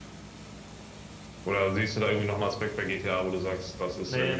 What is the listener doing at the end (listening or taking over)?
taking over